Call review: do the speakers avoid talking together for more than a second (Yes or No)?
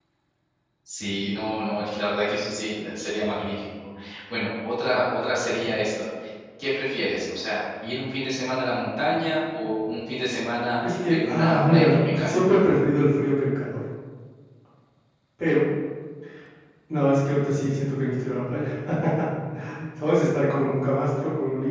No